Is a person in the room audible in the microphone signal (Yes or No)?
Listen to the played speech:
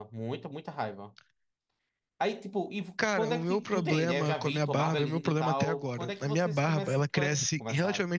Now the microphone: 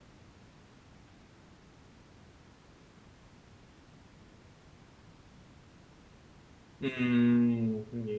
Yes